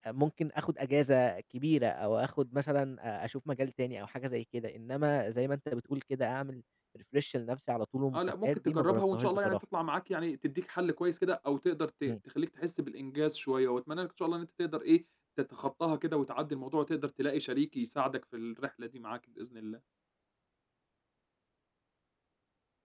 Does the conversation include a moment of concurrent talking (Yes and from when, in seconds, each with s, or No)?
Yes, from 8.1 s